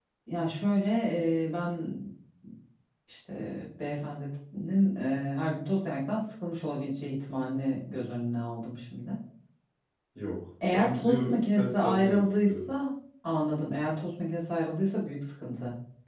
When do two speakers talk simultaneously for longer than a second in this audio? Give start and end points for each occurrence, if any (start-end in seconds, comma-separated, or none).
10.7-12.6